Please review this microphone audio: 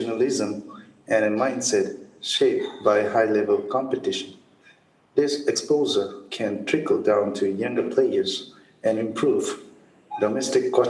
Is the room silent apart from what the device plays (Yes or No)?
Yes